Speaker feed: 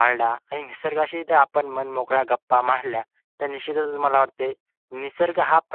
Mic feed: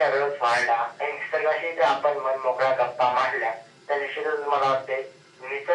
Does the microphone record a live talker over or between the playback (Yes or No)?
No